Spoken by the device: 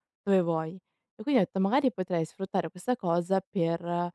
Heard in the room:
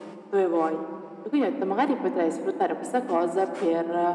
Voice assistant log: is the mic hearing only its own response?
Yes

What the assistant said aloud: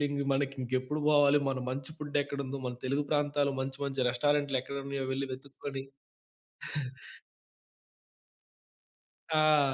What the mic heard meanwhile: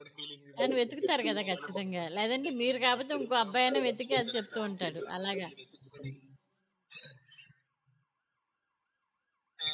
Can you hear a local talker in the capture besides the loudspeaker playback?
Yes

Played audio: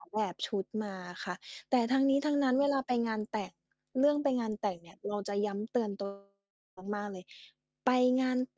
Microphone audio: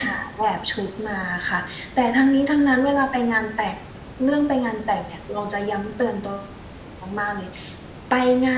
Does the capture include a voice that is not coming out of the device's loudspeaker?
No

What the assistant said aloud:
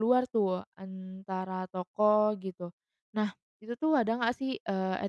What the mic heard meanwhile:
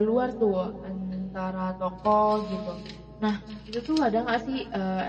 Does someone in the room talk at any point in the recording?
No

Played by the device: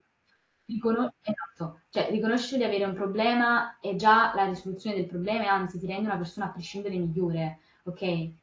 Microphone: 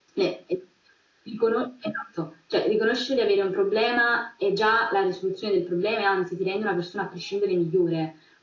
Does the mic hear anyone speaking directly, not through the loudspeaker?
No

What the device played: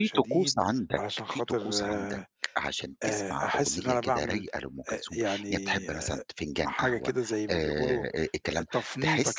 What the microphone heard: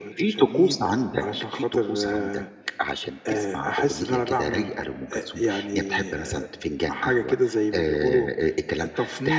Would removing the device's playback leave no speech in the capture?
Yes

